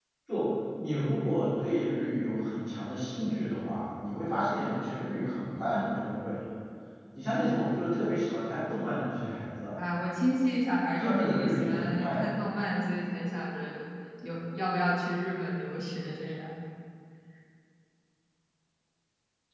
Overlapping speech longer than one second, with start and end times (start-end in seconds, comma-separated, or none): 11.0-12.2